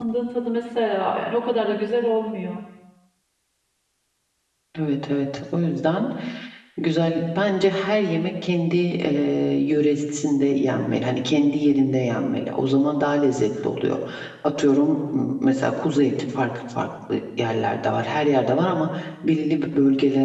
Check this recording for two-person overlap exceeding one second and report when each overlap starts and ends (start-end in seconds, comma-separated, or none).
none